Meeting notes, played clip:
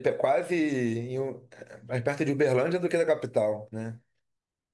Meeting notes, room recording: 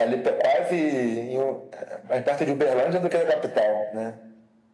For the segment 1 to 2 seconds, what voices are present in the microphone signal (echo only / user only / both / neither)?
echo only